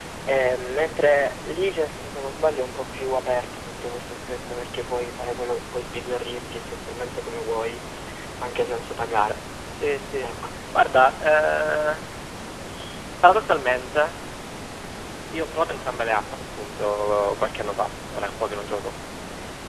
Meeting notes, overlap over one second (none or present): none